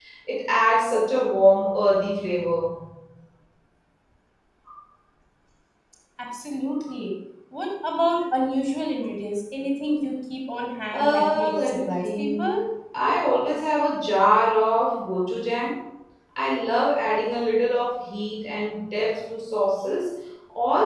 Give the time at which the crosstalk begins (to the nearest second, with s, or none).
11 s